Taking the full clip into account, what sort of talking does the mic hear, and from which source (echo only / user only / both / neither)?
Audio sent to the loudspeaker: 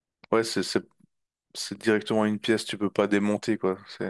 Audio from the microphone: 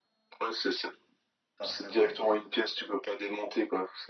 both